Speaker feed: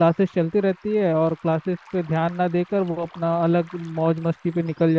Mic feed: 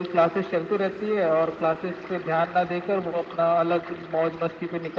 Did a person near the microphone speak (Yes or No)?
No